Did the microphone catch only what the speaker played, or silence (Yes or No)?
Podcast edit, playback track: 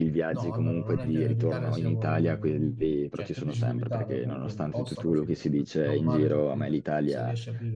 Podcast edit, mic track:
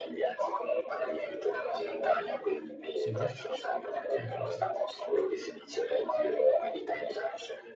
No